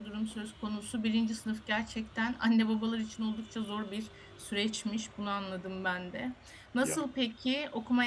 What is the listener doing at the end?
listening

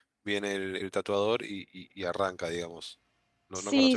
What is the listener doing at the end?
taking over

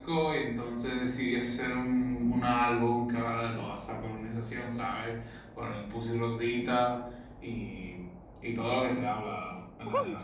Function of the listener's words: taking over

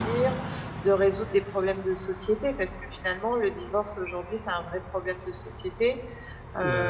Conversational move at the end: listening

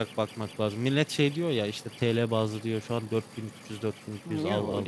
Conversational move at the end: taking over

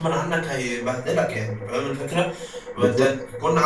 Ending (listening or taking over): listening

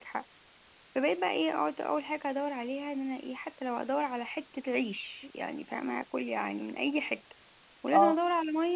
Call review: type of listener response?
listening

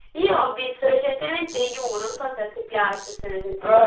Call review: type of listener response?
taking over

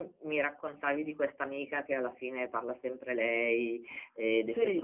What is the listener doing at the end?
listening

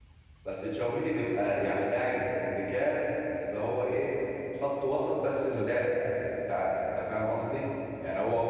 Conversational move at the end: listening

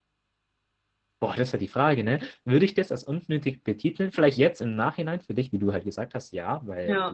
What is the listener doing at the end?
listening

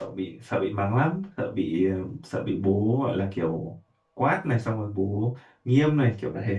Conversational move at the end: taking over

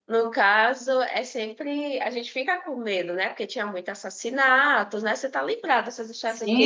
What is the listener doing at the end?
taking over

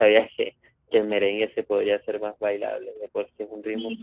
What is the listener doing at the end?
taking over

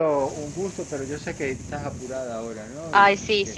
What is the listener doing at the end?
taking over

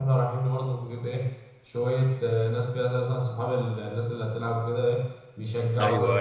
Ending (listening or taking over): taking over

